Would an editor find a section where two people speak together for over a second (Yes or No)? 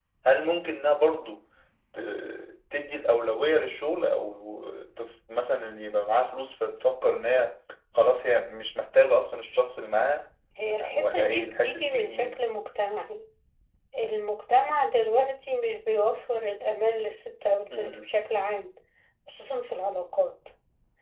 Yes